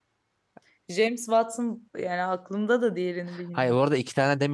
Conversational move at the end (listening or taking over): taking over